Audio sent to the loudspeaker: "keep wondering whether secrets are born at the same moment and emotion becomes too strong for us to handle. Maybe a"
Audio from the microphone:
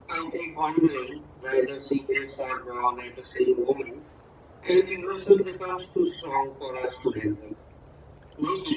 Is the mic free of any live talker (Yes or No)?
Yes